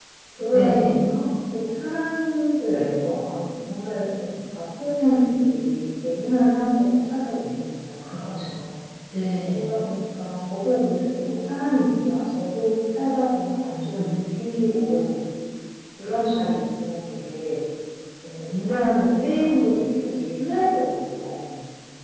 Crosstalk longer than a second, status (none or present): none